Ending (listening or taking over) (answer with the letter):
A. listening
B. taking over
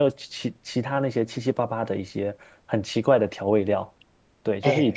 B